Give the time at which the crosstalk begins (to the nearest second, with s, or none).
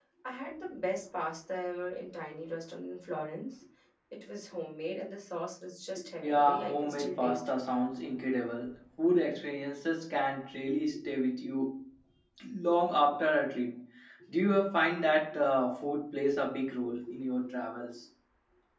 6 s